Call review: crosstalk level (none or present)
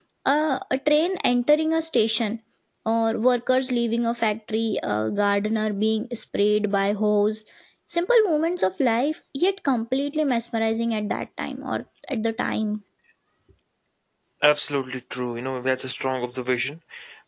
none